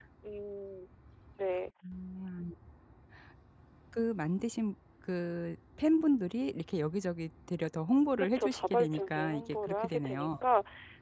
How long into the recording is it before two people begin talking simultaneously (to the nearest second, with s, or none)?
8 s